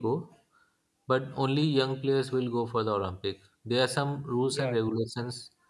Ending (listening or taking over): listening